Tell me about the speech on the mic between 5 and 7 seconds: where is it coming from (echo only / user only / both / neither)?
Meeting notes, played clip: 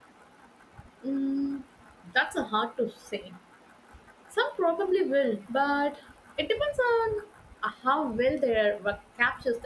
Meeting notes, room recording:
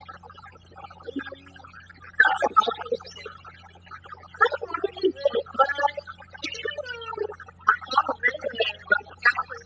echo only